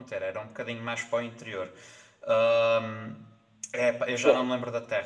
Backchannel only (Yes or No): Yes